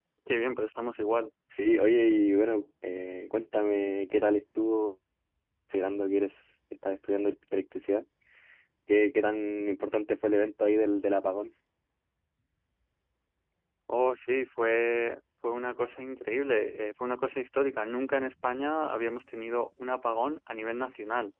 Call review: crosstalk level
none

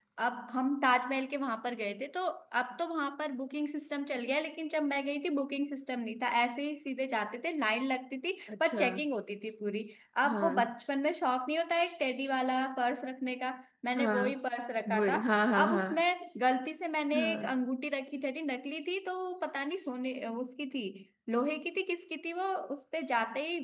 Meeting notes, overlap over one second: none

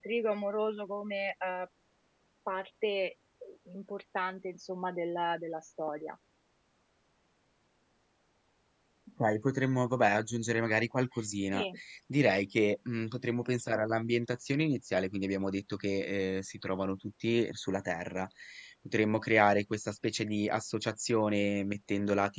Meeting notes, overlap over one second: none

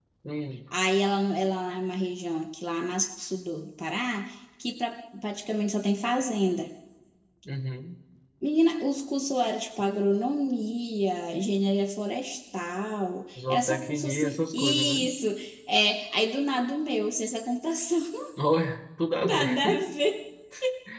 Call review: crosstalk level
present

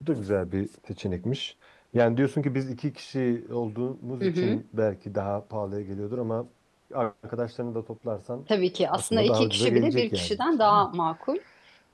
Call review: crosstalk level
present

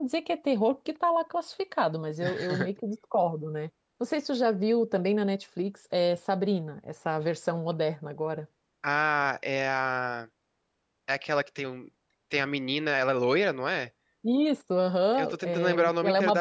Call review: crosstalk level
present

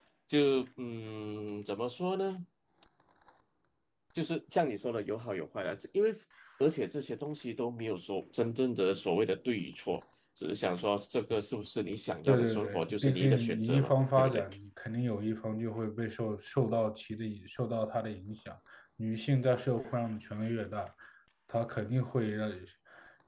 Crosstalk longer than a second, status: present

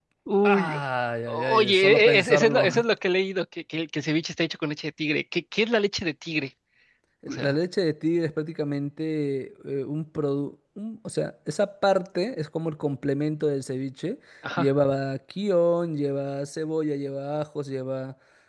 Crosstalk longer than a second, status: present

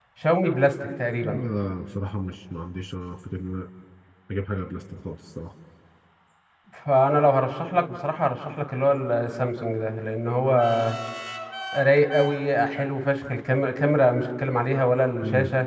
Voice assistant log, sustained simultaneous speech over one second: none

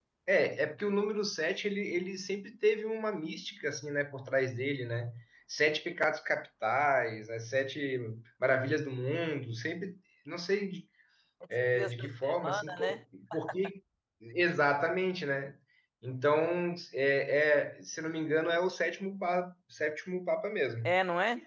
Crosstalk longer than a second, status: present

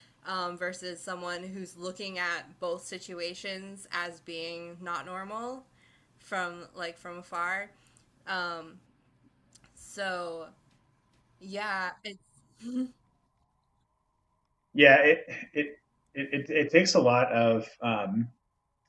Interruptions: none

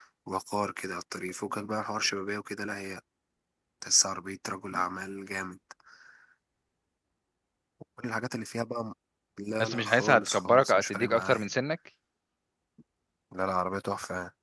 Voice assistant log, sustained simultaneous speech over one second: present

